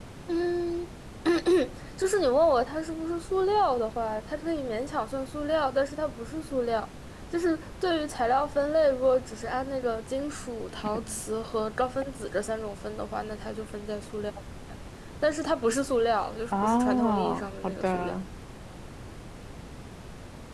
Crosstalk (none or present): present